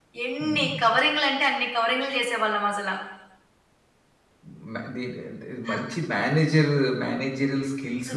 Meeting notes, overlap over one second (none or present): none